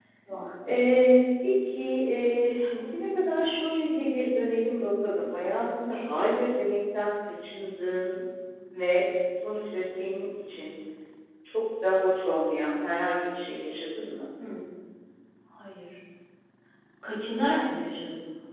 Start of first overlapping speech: none

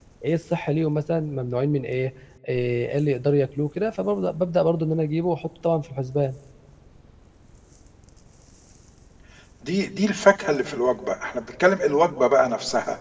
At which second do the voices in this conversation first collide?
none

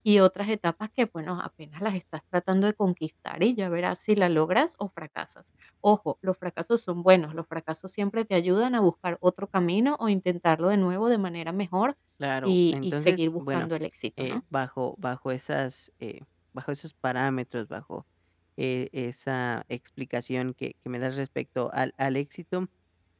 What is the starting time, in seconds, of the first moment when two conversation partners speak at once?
12.4 s

